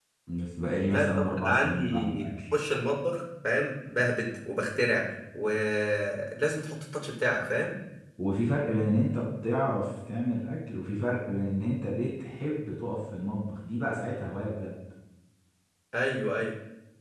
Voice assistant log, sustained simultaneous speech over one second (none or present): present